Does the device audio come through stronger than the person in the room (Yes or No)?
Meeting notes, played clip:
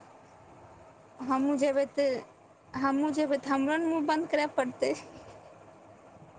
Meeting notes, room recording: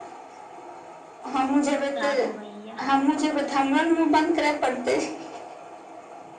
Yes